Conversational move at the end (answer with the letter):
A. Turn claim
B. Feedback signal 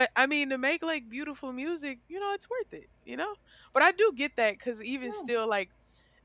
B